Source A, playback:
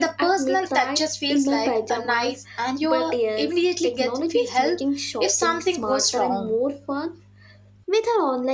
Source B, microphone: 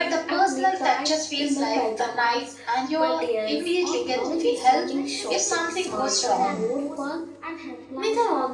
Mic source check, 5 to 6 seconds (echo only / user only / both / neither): both